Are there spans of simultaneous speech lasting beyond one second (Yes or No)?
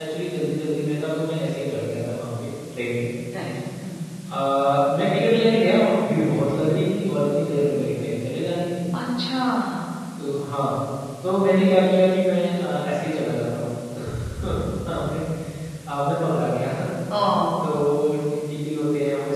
No